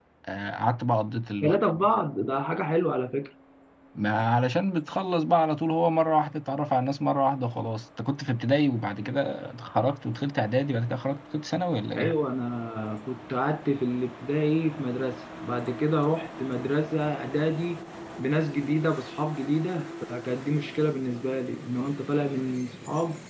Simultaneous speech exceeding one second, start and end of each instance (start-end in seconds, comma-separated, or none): none